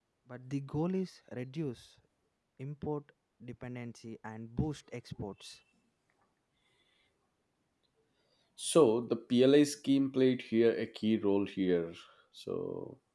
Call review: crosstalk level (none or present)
none